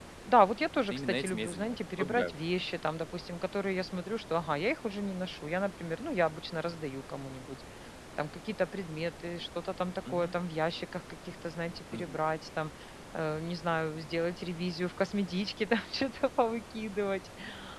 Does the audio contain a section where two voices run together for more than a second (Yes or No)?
Yes